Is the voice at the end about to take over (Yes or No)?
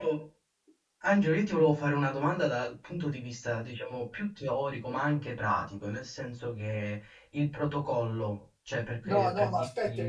Yes